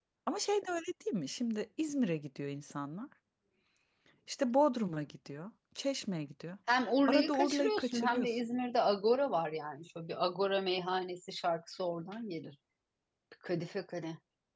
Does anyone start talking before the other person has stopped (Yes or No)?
Yes